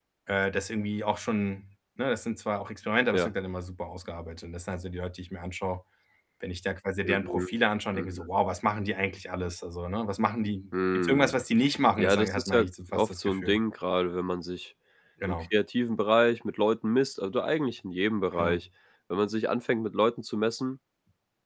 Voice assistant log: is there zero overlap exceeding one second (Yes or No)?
No